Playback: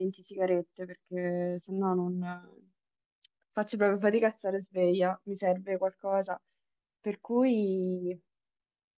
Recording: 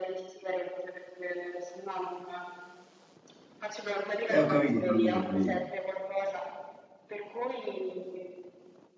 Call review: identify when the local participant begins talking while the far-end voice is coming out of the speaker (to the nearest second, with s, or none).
4 s